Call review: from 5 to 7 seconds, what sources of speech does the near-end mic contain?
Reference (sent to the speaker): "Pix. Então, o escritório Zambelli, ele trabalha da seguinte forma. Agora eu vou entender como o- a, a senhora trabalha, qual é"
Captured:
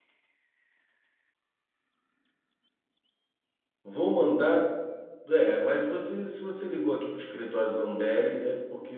user only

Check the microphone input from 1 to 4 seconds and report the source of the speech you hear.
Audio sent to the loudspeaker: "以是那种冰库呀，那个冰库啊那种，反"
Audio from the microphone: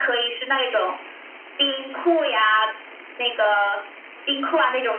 echo only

